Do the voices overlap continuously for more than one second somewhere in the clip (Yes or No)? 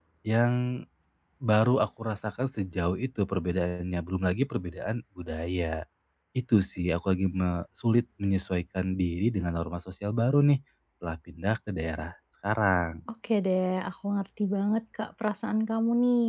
No